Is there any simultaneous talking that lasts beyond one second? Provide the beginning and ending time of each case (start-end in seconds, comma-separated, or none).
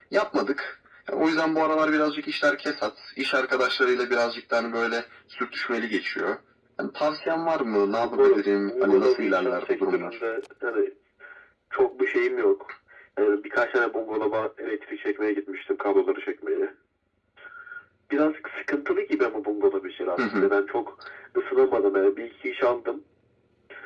8.0-10.2